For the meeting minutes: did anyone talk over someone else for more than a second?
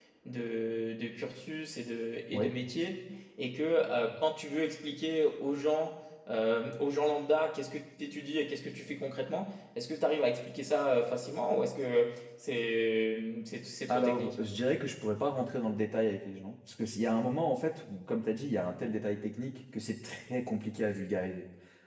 No

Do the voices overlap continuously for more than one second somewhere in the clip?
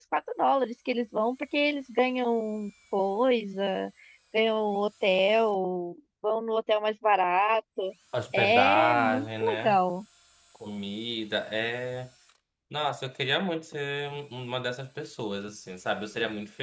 Yes, from 8.3 s

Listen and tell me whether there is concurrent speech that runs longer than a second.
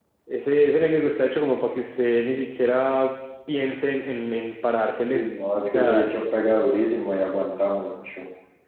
No

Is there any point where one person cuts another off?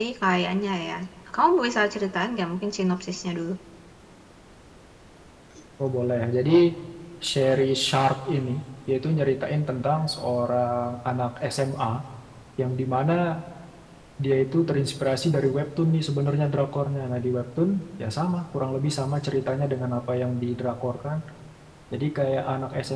No

